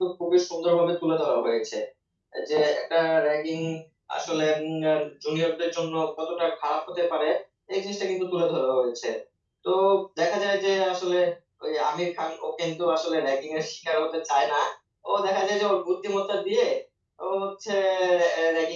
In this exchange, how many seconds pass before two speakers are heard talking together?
none

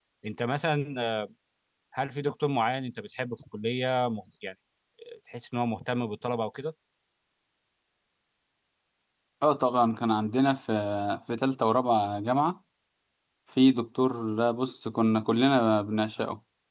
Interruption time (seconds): none

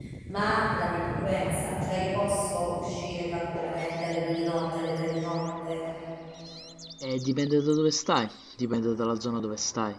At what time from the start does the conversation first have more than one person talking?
none

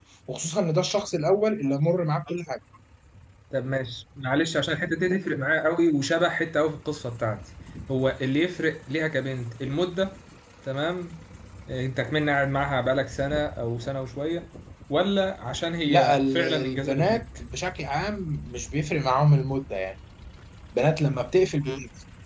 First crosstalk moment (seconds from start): 15.9 s

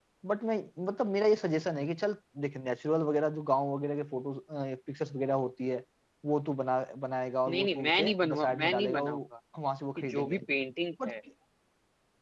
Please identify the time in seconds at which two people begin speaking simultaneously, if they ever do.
7.5 s

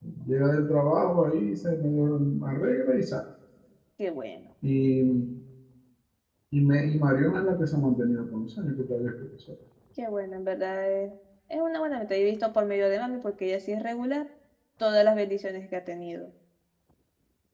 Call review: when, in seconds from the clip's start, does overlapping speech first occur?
none

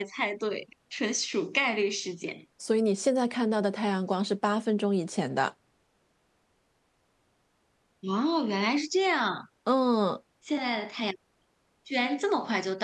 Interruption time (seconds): none

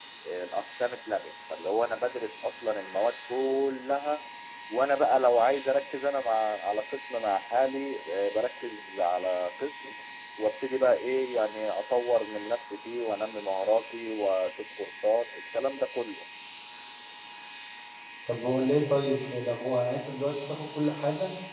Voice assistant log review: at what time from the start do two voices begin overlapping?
none

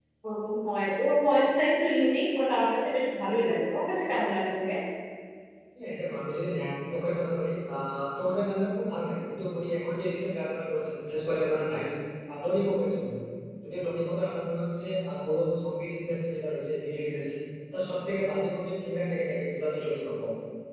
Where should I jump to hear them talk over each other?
none

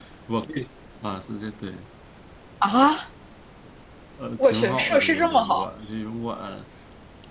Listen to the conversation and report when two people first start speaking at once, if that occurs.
4.4 s

